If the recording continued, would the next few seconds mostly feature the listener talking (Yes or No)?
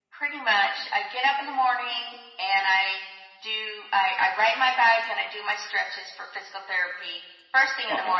No